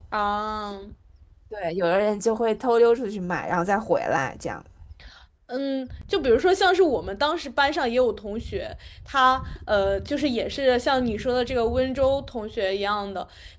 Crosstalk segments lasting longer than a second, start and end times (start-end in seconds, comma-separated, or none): none